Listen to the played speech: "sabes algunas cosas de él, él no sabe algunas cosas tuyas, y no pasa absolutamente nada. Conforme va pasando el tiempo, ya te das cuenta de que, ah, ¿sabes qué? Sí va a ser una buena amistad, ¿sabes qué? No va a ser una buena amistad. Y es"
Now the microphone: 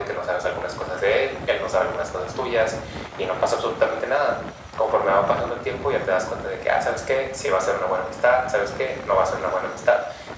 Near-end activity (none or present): none